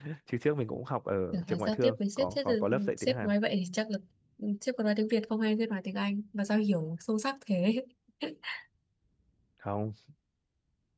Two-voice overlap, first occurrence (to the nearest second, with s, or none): 1 s